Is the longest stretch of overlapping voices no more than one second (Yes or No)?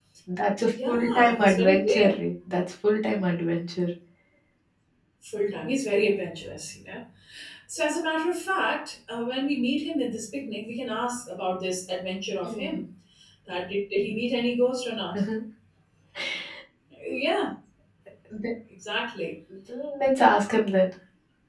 No